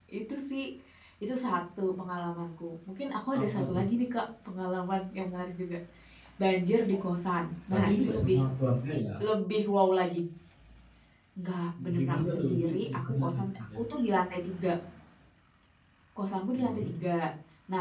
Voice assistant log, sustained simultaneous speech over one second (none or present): present